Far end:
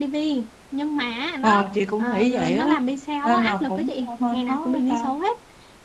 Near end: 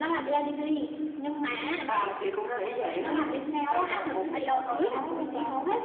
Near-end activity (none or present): present